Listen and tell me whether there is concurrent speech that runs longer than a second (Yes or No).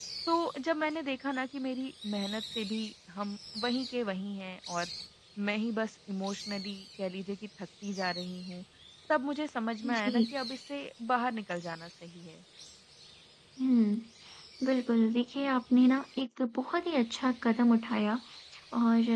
No